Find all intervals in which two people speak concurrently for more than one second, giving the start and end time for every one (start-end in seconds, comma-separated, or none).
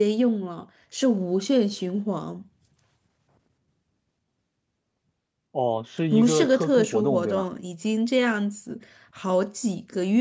6.1-7.4